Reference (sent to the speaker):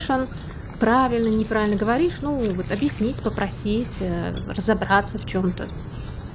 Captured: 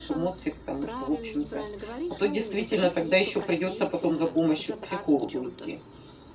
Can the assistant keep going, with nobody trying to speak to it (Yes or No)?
No